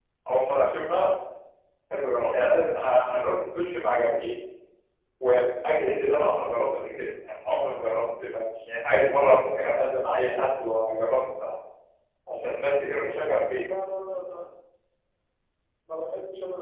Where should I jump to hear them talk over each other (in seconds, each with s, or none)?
none